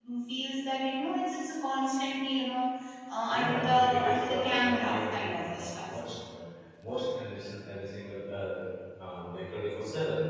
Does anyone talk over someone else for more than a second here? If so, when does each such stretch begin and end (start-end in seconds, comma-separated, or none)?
3.3-5.9